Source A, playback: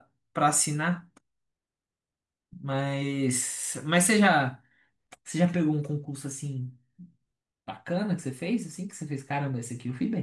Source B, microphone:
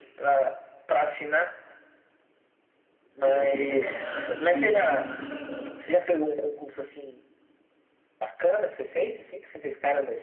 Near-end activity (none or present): present